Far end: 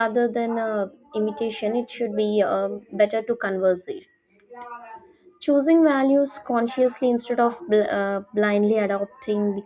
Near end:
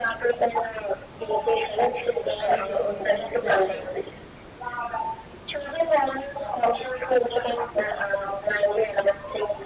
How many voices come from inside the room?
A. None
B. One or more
B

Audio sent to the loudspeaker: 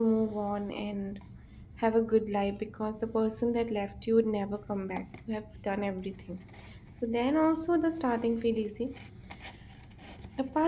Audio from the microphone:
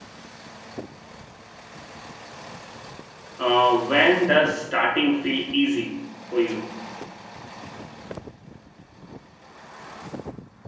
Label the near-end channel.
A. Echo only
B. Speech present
B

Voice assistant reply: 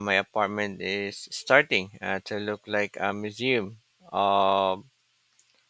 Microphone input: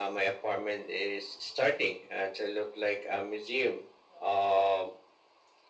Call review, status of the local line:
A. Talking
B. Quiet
B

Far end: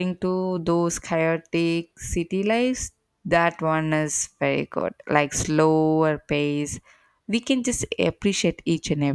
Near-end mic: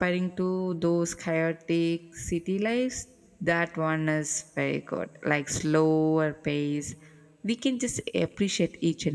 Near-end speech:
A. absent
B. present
A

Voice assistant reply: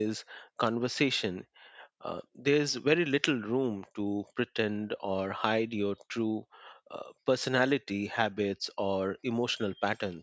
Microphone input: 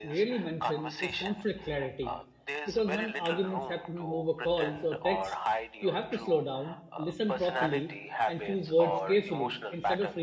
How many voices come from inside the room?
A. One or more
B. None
A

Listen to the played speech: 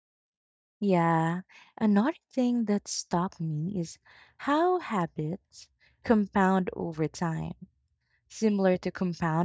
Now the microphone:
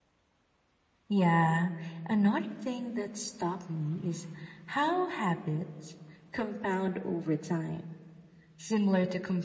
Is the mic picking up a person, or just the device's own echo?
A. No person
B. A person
A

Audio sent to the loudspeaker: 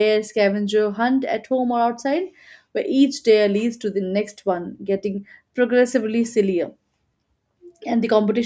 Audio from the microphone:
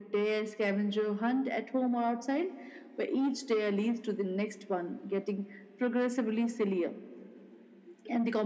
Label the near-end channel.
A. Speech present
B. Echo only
B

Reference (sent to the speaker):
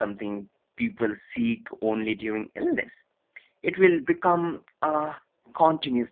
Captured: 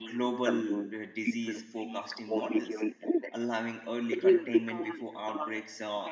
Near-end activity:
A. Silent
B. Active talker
B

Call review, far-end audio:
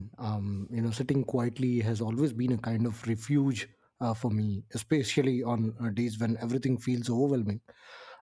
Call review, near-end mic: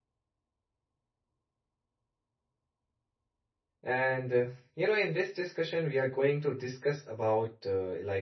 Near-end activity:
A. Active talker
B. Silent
A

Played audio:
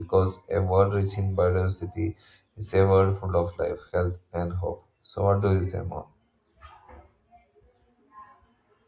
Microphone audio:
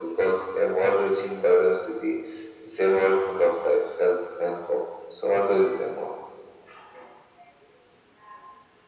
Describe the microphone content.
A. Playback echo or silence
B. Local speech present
A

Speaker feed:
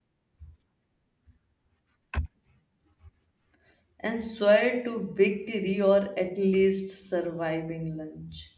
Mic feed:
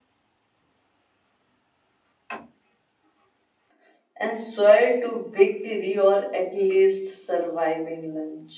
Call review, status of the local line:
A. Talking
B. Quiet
B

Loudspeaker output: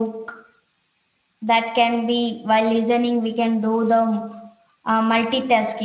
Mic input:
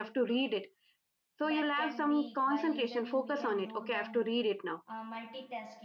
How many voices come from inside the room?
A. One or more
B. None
A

